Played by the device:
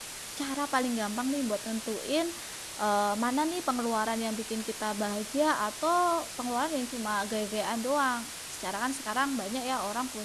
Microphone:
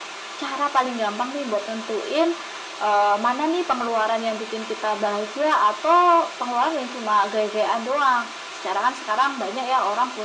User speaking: No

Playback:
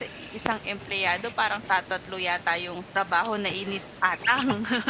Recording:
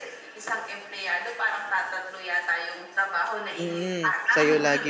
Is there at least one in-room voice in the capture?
Yes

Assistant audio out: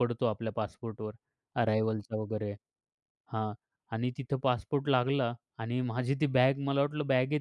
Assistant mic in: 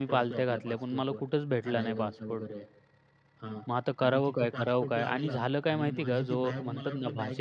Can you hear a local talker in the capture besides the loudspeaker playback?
Yes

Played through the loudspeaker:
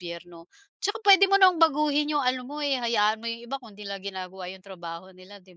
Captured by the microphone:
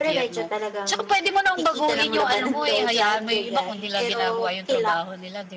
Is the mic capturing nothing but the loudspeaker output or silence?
No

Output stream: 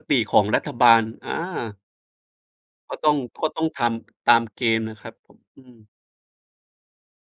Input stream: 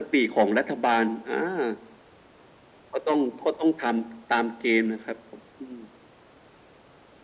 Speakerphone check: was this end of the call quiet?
Yes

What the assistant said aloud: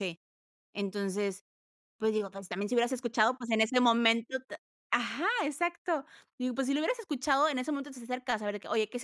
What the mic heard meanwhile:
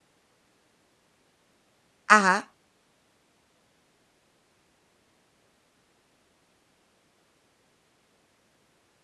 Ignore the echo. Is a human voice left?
Yes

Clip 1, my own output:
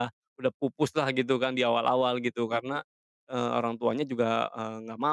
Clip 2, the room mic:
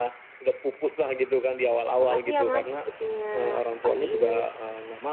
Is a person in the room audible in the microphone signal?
Yes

